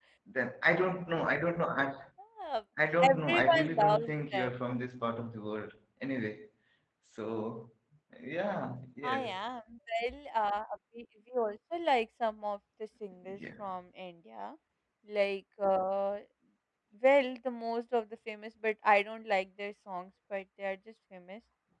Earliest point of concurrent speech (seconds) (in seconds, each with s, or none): 3.0 s